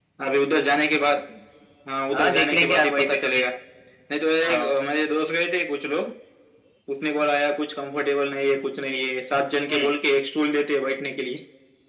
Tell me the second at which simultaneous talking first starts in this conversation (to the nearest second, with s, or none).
2 s